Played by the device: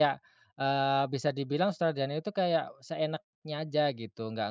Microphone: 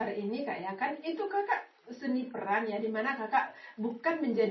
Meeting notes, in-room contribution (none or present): present